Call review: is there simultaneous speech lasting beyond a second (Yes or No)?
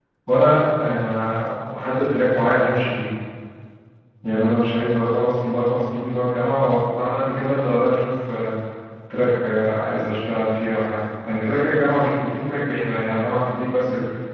No